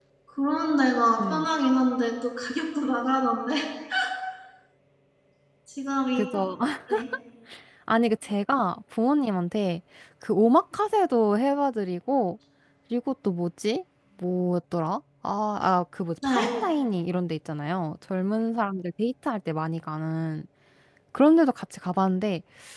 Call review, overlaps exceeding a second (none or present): none